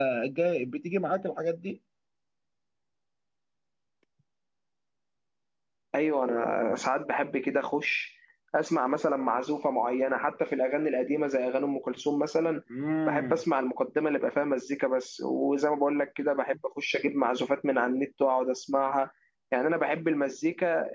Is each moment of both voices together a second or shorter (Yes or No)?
Yes